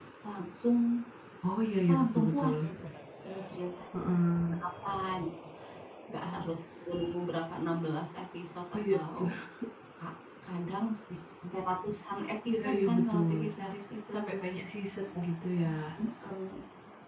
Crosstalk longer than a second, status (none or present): present